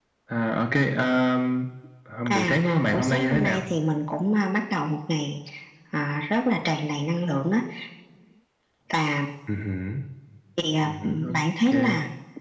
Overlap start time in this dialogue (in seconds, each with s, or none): 2.3 s